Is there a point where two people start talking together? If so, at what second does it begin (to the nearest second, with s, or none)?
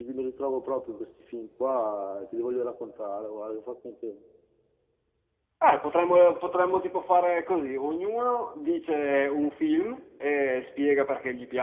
none